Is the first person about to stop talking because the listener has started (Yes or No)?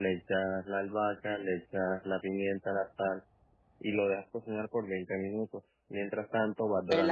Yes